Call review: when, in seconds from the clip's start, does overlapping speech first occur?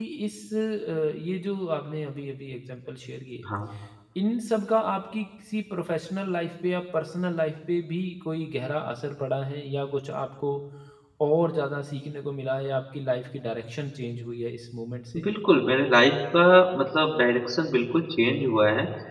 none

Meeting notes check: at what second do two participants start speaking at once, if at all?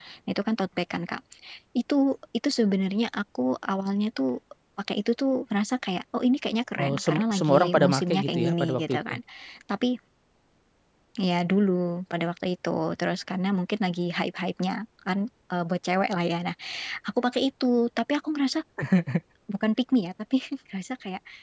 6.8 s

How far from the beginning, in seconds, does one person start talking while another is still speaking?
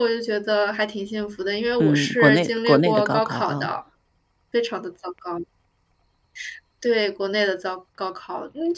1.8 s

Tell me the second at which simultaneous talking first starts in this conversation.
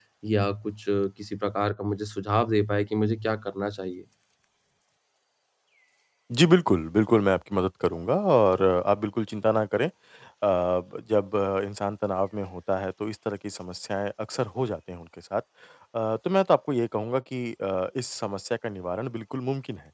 none

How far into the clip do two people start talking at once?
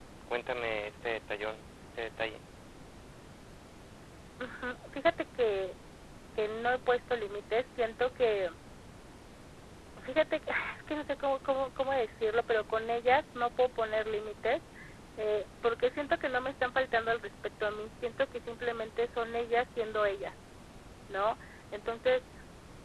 none

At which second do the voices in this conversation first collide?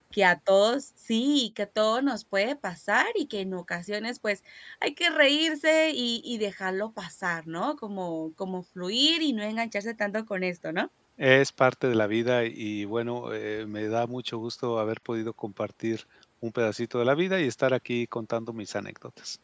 none

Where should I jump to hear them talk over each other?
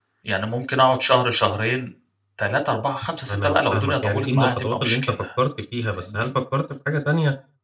3.3 s

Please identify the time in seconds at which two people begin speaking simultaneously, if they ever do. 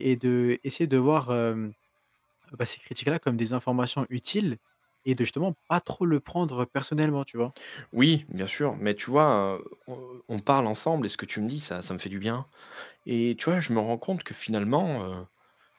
none

